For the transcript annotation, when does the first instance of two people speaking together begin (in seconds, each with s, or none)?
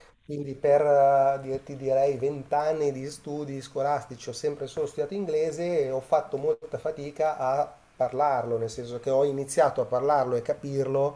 none